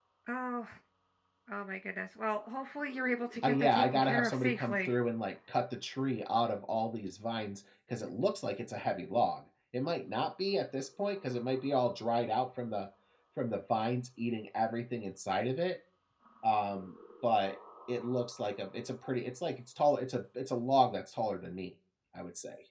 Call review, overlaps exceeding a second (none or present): present